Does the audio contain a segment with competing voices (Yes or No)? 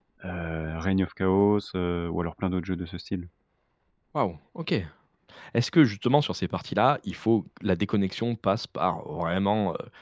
No